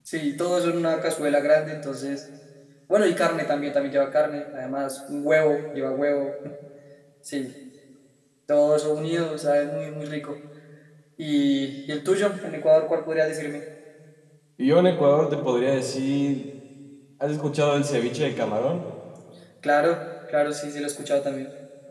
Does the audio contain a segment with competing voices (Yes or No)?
No